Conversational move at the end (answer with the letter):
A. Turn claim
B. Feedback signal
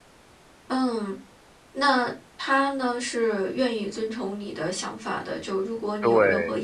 B